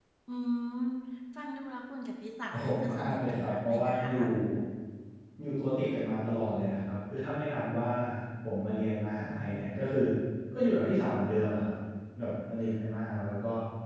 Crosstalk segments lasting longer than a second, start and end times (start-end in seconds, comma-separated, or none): 2.5-4.1